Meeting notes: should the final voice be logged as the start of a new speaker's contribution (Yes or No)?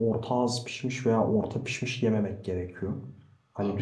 No